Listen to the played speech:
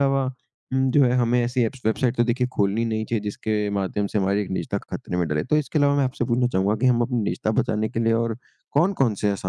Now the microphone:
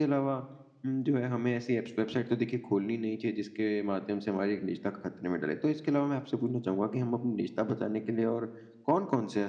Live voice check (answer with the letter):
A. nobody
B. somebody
A